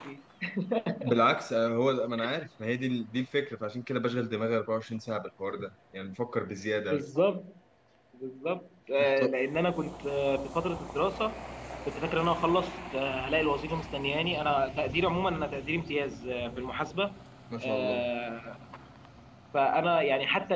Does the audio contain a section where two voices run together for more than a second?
No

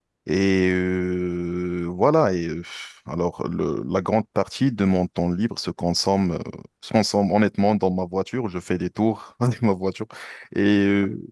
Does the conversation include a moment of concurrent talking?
No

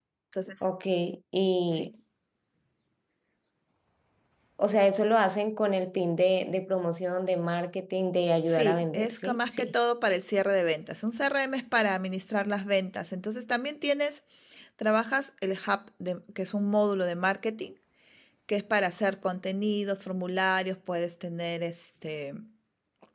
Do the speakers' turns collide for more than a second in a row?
Yes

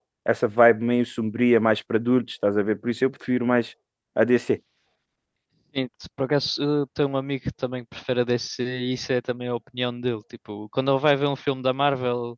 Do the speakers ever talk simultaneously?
No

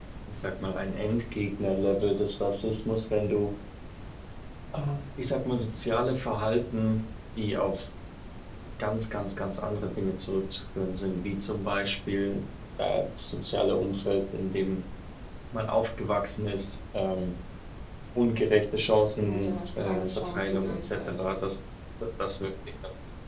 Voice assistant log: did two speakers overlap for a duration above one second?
Yes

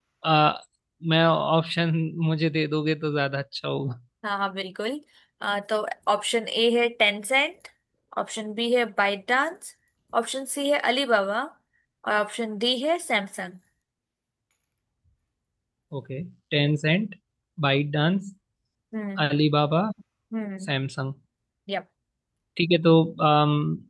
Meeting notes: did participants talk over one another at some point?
No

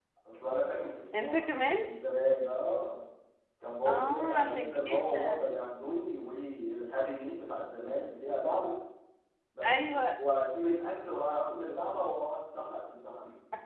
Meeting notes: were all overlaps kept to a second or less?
No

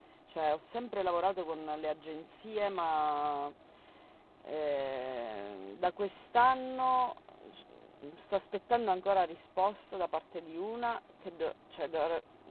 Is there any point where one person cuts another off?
No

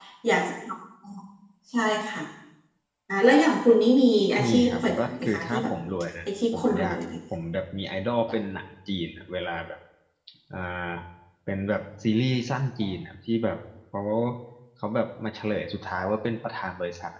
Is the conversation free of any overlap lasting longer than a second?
No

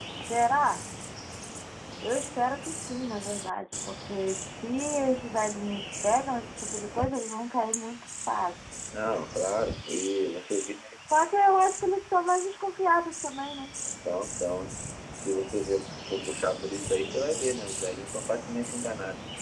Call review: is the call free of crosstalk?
Yes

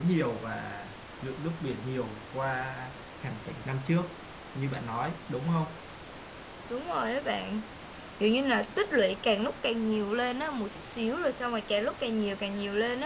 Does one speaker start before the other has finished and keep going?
No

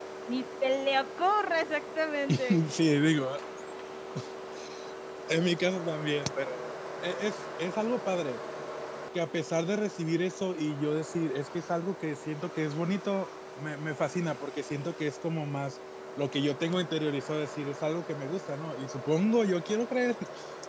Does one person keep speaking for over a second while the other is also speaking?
No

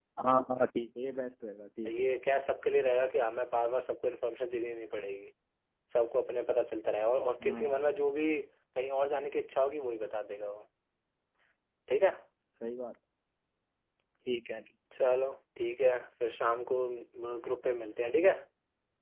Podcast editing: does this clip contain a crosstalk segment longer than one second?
No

